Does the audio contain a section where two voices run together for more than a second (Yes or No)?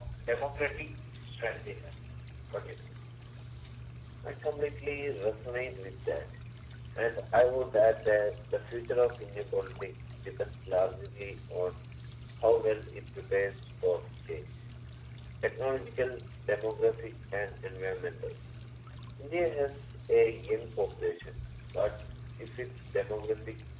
No